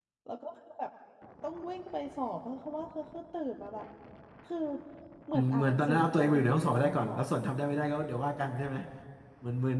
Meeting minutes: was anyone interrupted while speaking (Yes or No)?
Yes